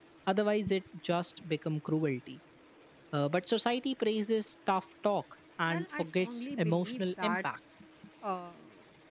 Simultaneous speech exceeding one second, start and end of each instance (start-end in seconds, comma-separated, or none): 5.7-7.4